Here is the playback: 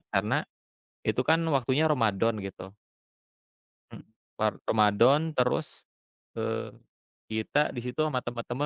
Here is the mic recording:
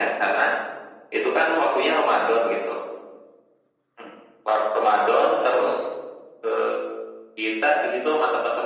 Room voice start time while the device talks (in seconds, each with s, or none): none